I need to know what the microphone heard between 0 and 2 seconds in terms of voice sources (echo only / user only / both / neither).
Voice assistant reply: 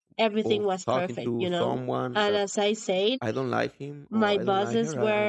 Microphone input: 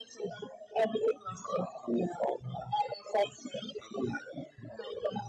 echo only